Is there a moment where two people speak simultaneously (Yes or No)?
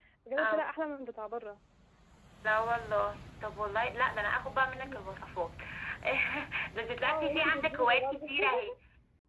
Yes